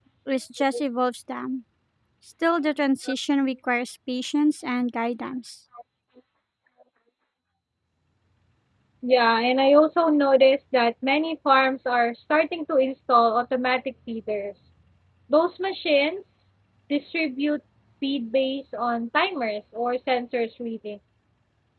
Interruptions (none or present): none